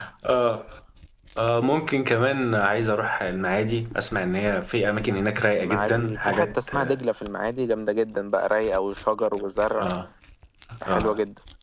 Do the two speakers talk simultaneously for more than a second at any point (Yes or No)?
Yes